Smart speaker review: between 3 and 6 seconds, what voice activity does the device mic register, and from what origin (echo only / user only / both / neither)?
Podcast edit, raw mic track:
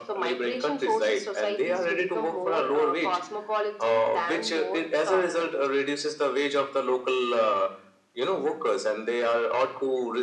echo only